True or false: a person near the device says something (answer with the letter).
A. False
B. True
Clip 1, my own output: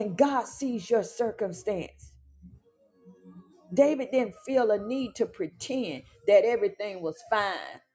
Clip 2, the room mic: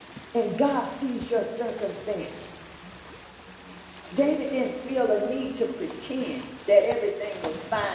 A